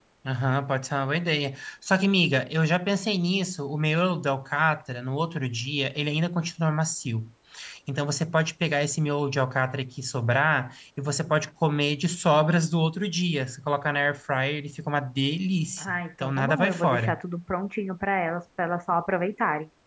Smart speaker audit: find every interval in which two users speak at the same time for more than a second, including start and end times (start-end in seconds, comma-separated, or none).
15.8-17.2